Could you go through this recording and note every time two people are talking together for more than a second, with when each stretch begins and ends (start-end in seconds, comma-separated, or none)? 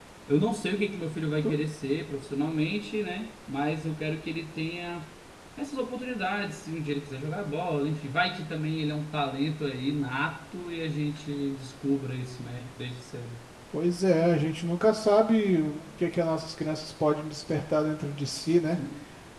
none